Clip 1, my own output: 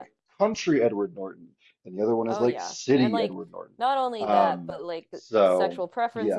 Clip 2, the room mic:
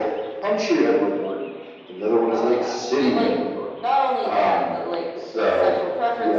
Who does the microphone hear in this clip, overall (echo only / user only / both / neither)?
echo only